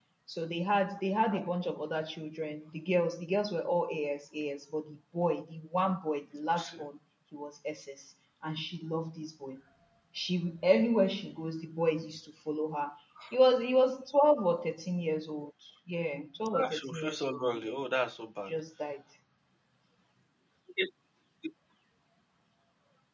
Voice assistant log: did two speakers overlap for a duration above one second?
Yes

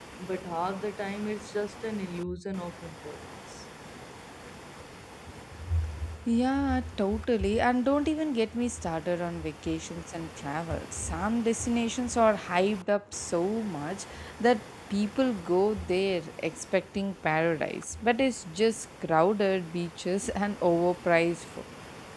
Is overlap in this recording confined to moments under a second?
Yes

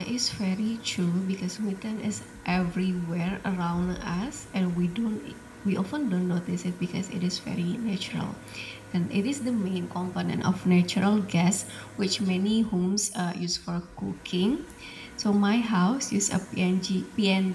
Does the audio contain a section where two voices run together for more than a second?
No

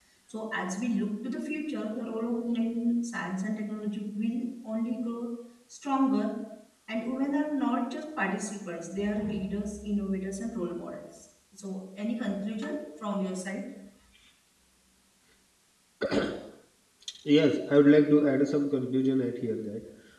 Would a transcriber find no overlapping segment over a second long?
Yes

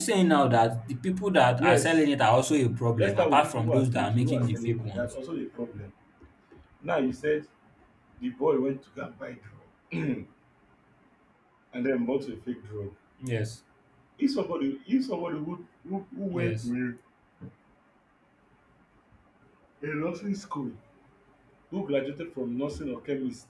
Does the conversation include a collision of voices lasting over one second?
Yes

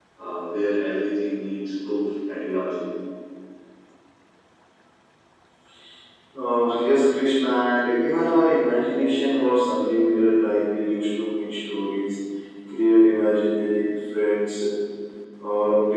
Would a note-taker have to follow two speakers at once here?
No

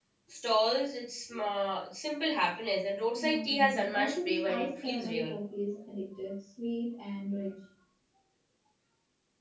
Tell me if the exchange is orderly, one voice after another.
No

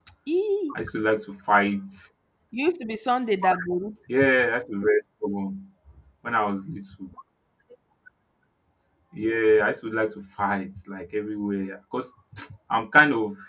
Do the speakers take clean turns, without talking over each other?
Yes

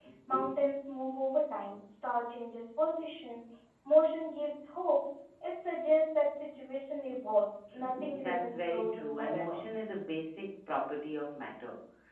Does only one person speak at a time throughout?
No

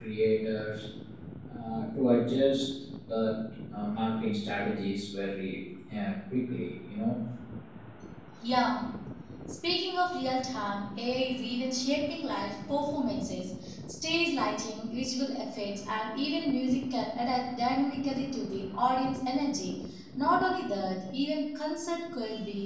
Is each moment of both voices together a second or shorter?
Yes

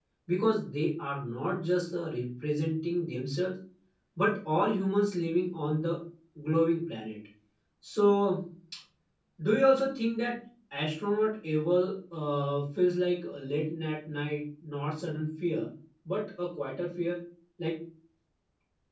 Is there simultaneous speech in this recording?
No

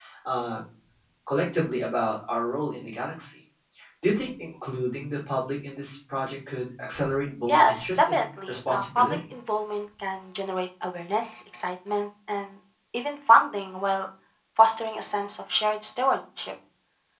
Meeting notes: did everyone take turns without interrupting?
No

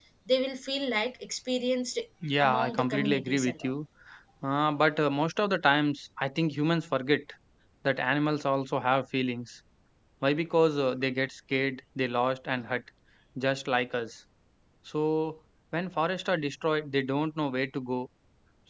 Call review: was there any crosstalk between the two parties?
Yes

